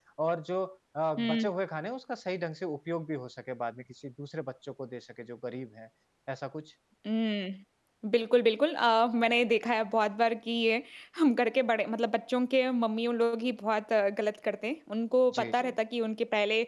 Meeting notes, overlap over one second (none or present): none